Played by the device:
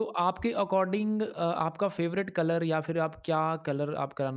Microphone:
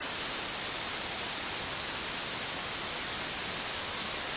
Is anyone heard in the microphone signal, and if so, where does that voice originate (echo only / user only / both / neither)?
neither